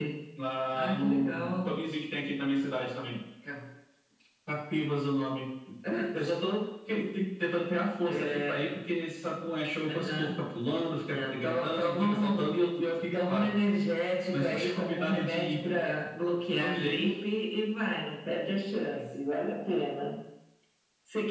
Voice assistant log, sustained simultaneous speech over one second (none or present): present